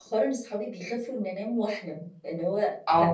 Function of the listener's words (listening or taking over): taking over